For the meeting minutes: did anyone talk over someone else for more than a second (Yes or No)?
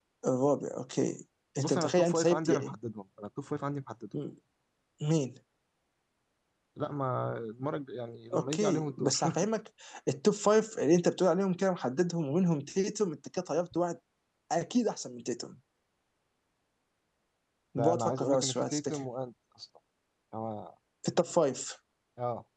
Yes